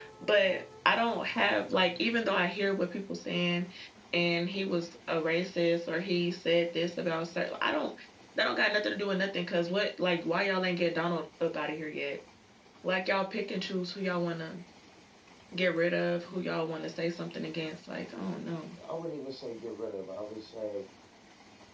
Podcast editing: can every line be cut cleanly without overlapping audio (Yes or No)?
Yes